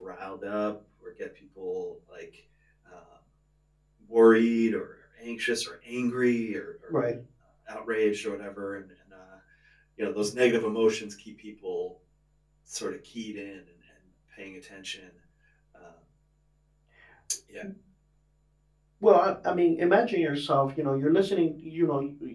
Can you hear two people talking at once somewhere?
No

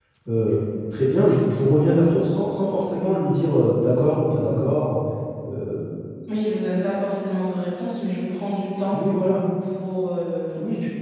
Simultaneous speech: No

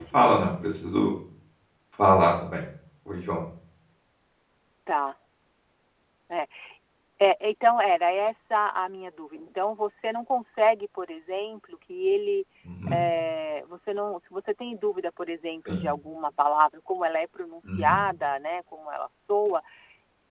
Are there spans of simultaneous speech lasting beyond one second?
No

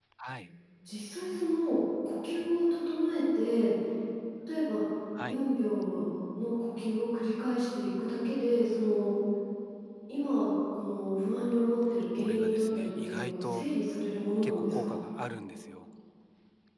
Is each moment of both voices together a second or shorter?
No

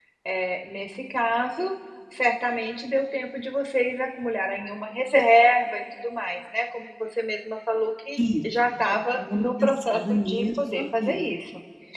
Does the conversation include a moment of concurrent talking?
Yes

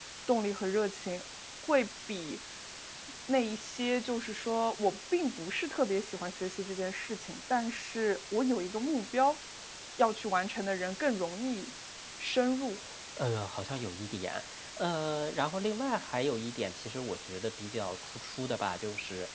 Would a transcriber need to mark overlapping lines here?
No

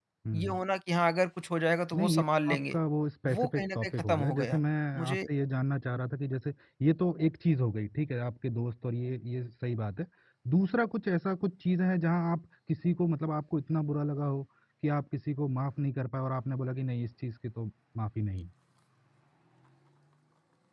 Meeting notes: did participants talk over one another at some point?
Yes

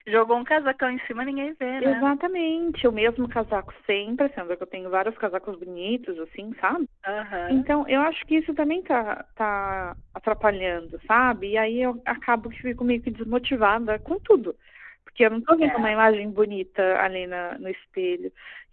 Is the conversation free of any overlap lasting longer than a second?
Yes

